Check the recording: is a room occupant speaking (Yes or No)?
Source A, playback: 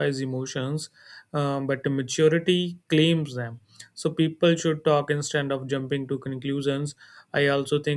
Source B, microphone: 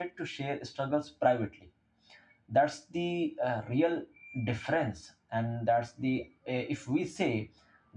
Yes